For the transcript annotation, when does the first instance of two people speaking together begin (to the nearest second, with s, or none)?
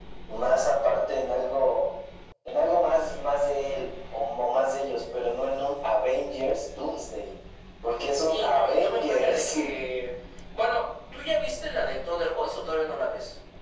8 s